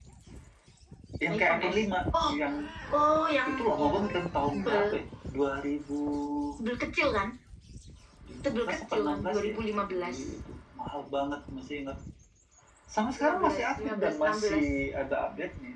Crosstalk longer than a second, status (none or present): present